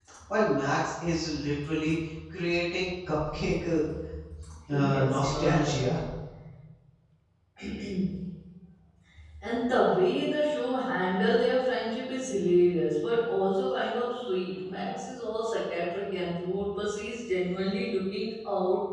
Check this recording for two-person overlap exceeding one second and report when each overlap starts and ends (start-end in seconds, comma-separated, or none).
4.7-6.0